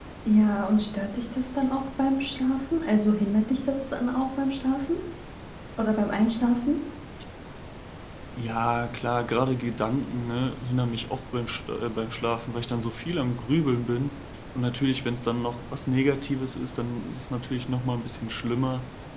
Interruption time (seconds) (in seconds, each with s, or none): none